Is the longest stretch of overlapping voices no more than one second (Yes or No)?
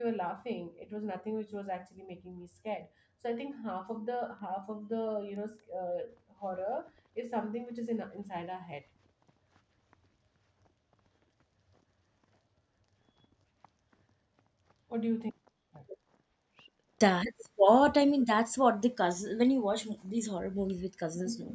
Yes